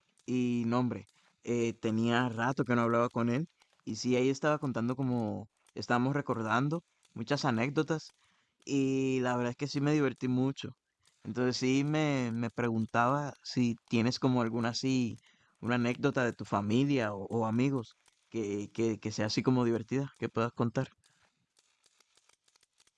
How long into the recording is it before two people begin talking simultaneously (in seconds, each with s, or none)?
none